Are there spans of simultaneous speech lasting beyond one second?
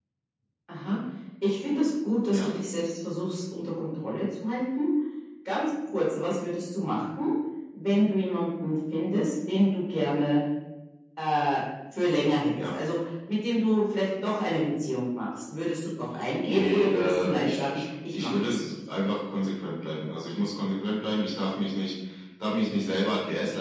Yes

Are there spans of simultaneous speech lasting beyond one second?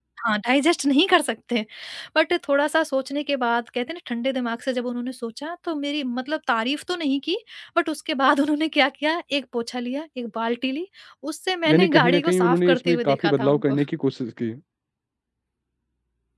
Yes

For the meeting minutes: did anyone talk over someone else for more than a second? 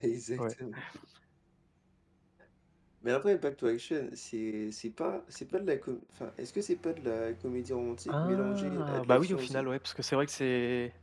Yes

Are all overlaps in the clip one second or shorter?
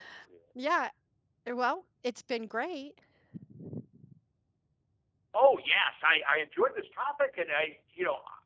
Yes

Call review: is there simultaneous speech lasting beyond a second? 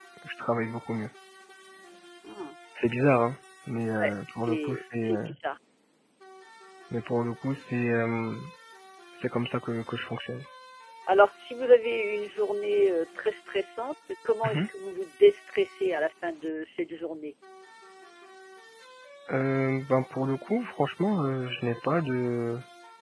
Yes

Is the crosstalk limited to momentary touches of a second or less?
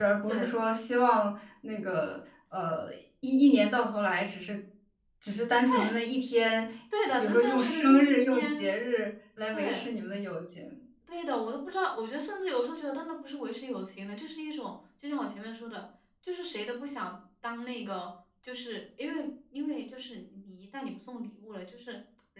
No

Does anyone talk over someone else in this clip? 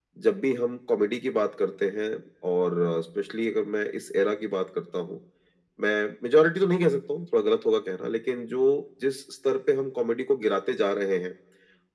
No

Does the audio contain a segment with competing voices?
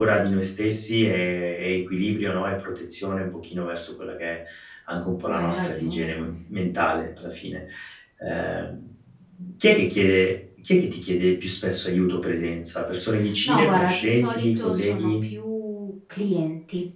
Yes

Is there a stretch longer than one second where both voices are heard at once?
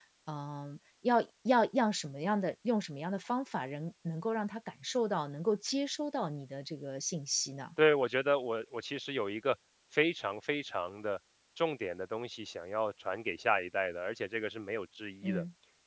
No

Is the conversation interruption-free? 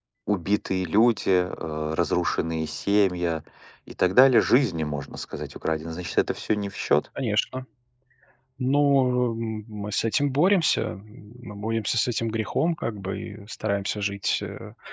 Yes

